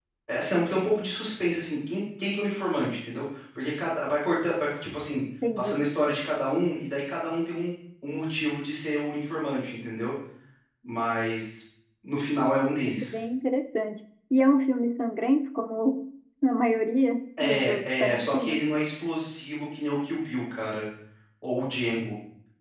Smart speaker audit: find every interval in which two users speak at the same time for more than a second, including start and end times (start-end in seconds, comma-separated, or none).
17.4-18.6